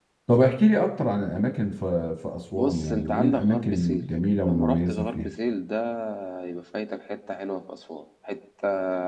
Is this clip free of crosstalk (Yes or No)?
No